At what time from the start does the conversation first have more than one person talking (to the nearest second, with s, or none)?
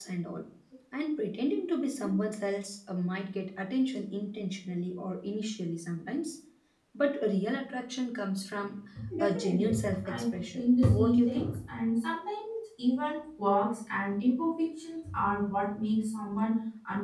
9 s